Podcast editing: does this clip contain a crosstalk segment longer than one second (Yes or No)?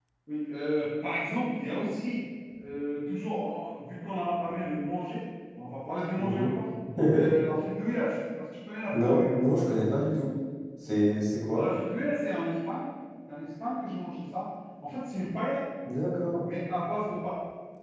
No